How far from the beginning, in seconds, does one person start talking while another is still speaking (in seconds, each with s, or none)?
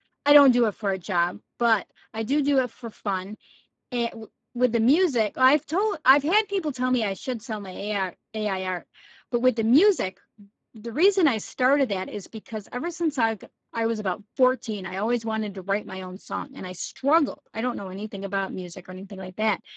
none